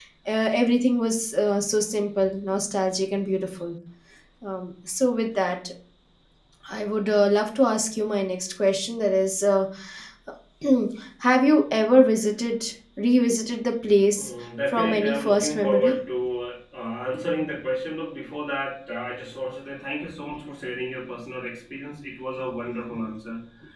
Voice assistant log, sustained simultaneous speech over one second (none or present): present